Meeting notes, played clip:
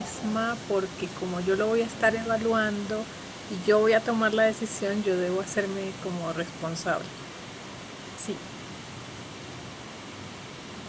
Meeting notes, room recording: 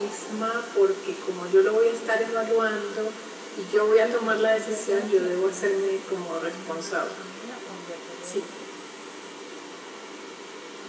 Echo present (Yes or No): Yes